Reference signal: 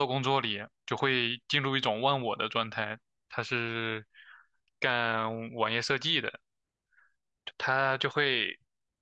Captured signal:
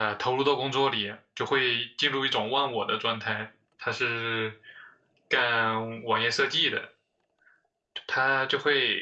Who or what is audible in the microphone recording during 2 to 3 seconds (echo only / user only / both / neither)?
echo only